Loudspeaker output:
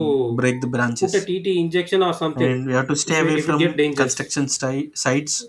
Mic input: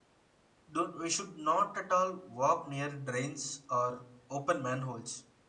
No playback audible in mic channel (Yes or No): Yes